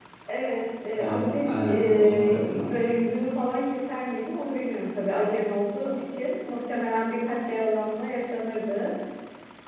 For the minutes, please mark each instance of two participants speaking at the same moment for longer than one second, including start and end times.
0.9-2.7

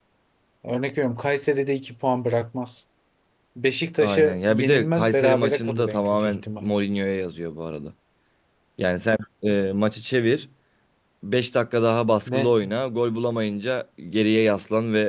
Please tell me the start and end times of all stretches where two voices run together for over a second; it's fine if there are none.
4.0-6.6

